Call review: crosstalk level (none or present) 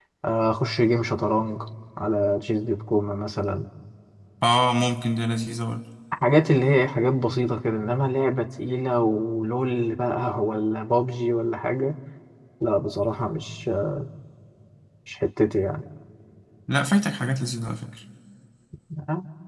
none